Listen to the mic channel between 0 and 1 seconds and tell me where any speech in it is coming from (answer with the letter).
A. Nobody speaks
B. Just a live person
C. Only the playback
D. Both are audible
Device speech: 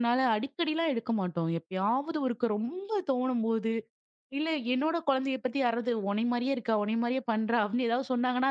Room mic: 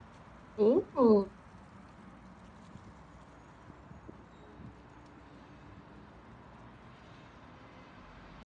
B